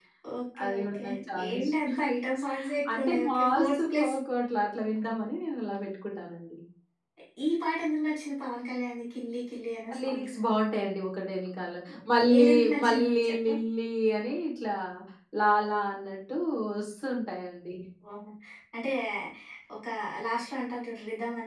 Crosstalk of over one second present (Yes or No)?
Yes